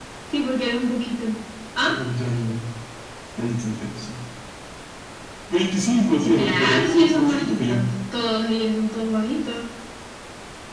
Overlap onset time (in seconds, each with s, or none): 6.2 s